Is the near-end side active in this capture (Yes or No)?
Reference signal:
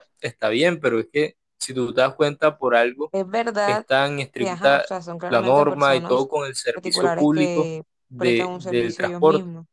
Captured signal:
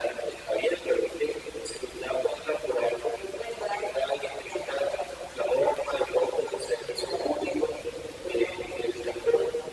No